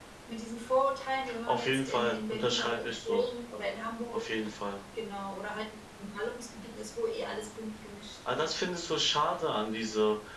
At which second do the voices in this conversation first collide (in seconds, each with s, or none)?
1.5 s